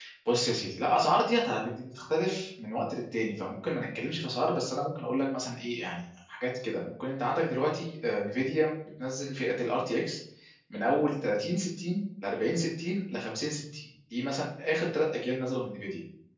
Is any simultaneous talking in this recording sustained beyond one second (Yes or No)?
No